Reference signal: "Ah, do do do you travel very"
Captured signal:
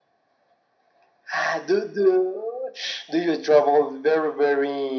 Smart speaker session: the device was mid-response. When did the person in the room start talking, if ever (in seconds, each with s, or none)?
none